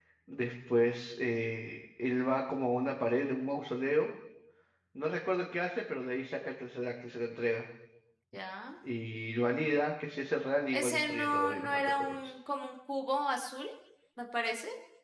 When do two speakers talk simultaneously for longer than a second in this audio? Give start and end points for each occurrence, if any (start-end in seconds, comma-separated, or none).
10.7-12.2